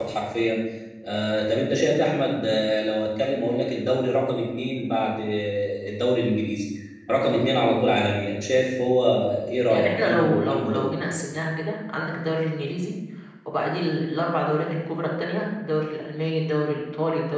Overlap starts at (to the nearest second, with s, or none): 10 s